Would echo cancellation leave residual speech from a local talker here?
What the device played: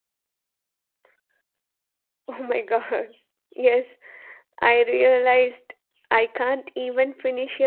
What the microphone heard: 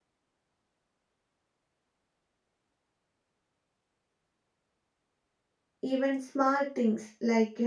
Yes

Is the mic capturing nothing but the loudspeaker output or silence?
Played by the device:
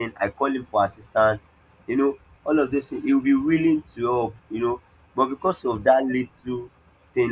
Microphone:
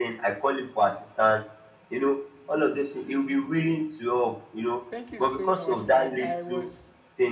No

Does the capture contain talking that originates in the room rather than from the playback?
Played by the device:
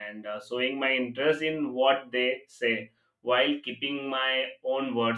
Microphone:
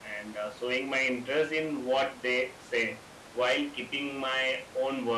No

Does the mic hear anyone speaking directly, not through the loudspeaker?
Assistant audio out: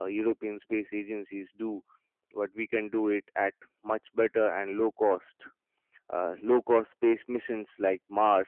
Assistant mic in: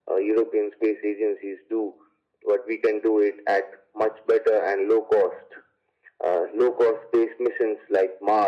No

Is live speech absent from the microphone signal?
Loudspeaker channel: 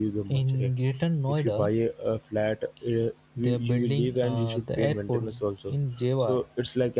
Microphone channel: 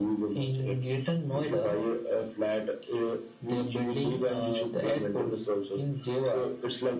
Yes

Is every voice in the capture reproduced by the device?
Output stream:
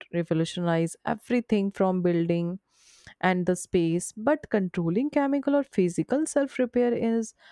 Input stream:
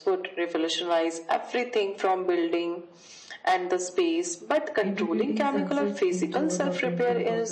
No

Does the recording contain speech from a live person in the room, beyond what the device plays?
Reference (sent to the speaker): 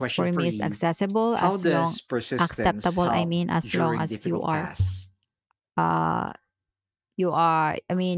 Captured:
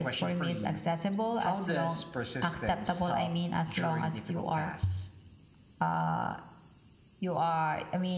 No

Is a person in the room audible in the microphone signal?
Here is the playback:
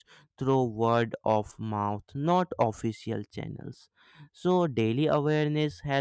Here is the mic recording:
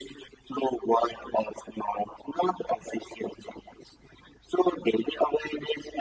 No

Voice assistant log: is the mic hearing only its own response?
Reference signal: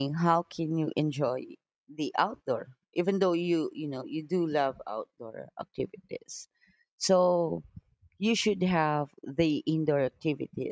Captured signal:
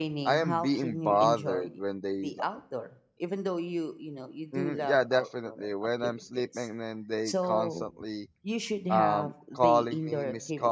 No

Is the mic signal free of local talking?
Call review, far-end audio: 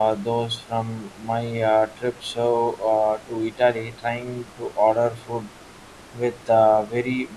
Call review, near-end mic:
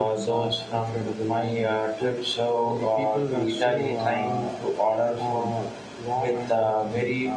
No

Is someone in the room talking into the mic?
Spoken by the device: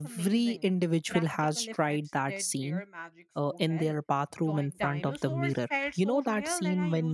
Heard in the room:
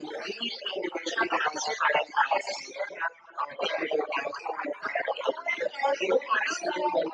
No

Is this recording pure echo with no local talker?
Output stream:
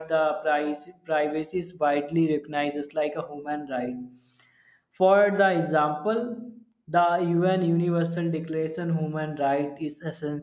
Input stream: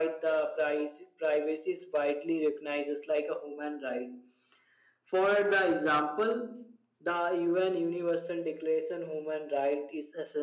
Yes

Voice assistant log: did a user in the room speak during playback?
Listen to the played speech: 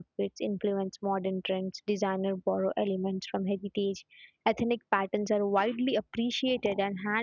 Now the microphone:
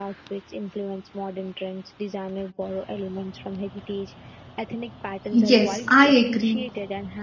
Yes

